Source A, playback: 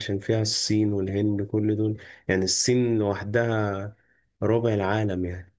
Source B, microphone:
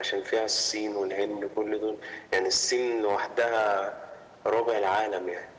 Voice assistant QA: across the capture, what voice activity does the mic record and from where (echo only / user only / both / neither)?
echo only